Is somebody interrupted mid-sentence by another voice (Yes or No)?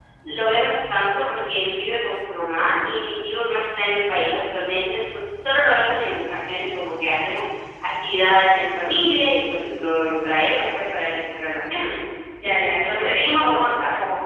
Yes